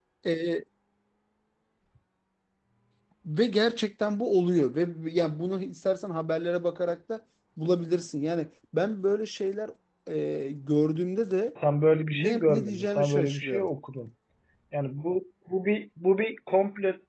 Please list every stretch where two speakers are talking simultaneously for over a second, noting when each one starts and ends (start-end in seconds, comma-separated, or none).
12.1-13.7